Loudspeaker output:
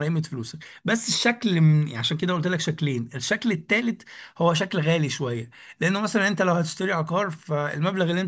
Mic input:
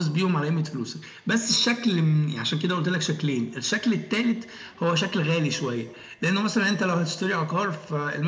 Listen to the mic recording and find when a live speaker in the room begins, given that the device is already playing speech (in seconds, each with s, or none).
none